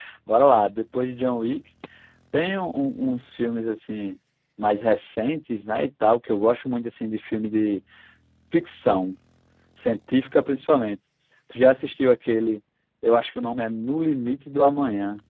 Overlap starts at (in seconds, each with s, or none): none